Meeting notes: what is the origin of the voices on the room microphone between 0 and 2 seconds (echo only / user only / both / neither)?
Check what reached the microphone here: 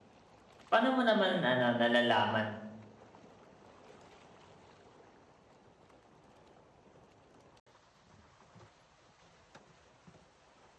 user only